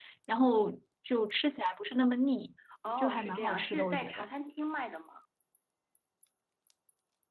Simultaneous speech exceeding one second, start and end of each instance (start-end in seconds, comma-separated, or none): 3.0-4.2